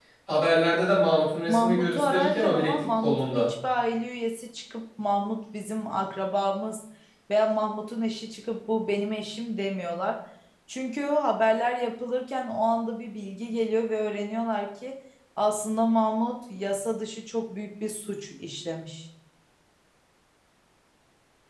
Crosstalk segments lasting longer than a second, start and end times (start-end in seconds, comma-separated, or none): 1.5-3.5